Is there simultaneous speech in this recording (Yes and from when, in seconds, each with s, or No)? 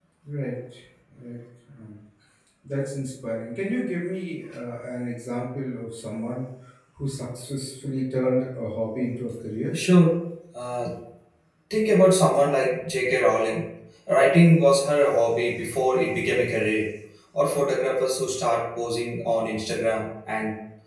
No